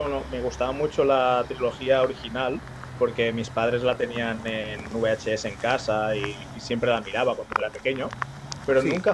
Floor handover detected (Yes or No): No